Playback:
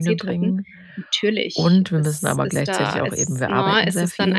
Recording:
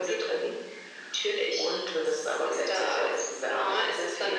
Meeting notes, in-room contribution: none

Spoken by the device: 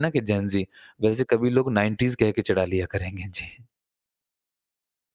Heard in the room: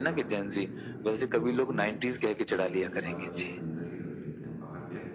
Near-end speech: present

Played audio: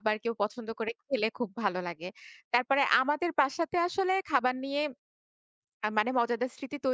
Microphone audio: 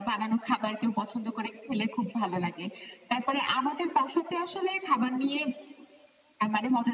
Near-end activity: none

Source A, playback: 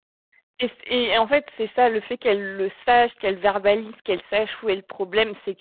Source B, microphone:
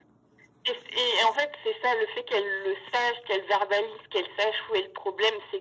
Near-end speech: none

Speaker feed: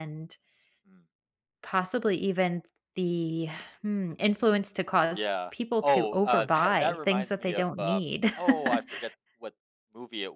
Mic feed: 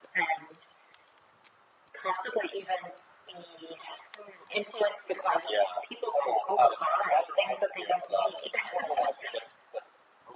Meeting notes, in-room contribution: none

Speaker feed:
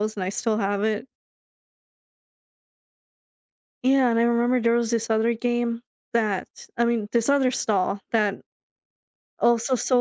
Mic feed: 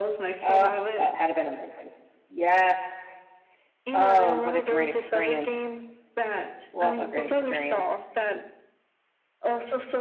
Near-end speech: present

